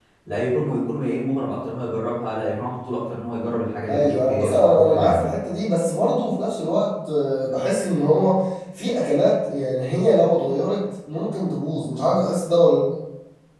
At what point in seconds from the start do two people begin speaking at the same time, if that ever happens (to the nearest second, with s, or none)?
4 s